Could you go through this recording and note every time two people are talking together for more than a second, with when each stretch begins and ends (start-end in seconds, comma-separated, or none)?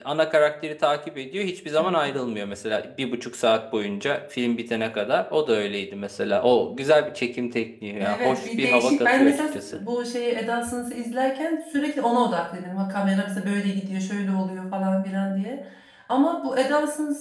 8.0-9.8